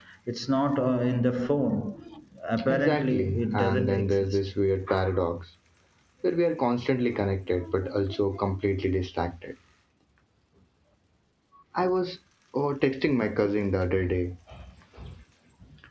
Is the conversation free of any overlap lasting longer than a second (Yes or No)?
No